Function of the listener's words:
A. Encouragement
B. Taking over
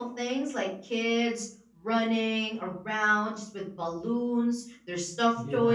A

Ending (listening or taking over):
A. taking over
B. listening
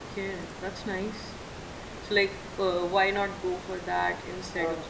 A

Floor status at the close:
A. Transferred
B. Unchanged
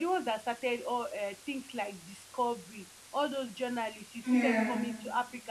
B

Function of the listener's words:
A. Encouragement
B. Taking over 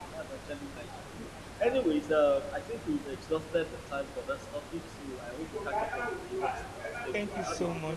B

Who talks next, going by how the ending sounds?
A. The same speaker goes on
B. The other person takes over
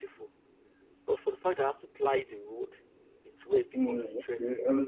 B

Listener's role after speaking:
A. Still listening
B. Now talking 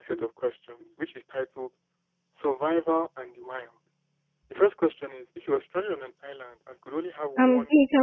B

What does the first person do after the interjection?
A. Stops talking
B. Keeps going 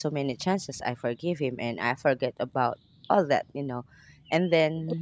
A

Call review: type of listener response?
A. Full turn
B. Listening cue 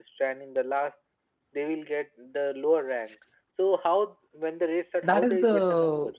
A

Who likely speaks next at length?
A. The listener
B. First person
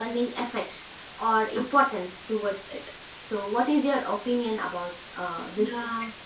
A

